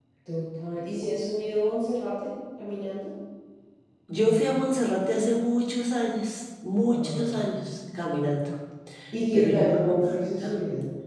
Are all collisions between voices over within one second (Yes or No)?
No